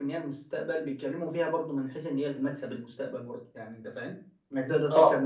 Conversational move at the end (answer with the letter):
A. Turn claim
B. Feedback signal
B